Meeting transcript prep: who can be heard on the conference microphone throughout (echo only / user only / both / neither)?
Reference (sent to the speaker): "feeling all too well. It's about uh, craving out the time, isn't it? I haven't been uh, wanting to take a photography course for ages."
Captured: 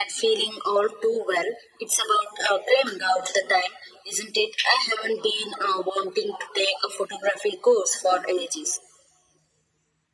echo only